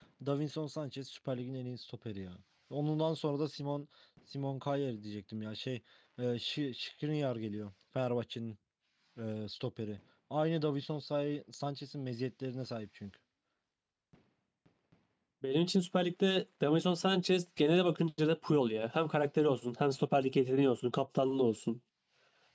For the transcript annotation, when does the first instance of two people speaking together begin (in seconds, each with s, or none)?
none